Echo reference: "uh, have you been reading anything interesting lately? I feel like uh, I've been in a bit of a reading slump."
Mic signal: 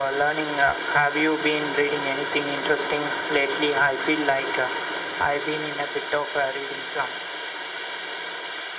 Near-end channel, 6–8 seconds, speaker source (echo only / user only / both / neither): echo only